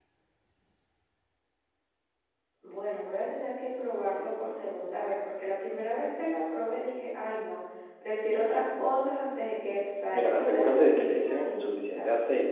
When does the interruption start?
10.2 s

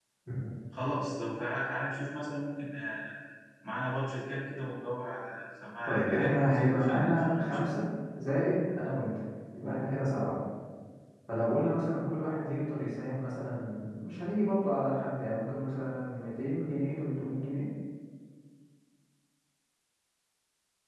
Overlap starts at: 5.9 s

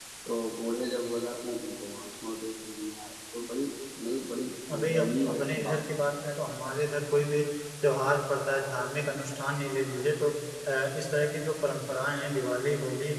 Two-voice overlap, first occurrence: 4.7 s

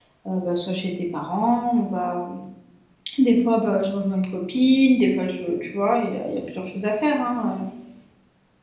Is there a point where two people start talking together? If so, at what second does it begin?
none

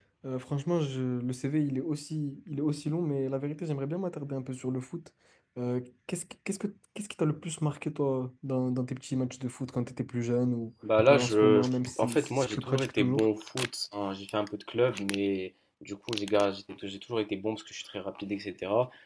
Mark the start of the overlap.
11.1 s

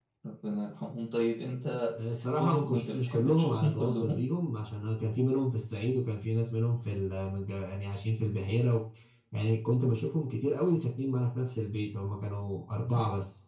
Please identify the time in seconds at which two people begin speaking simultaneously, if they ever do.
2.4 s

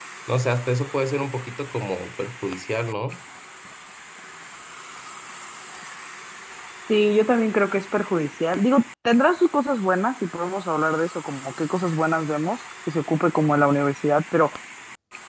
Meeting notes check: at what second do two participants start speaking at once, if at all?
none

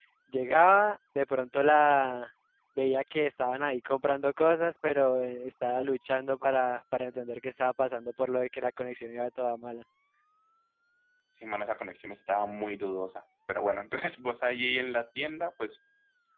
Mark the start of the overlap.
none

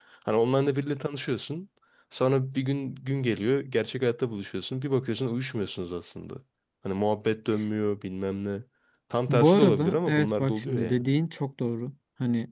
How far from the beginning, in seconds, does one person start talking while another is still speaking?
9.3 s

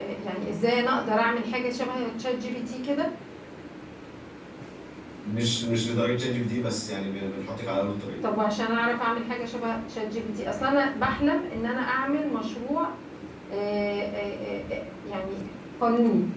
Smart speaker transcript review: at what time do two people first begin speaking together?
none

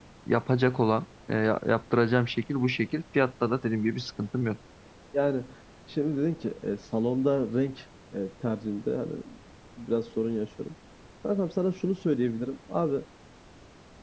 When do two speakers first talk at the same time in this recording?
none

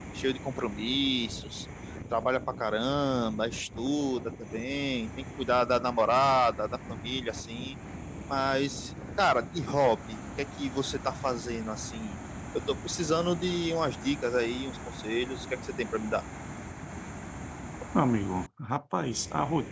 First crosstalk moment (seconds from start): none

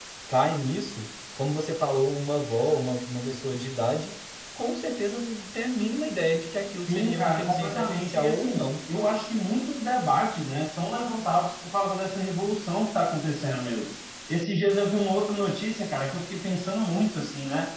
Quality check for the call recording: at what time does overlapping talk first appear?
6.9 s

